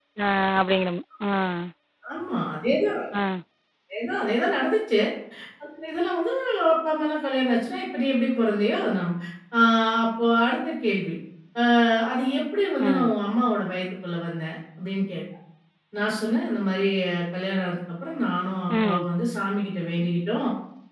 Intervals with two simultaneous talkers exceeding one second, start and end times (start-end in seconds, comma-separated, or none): none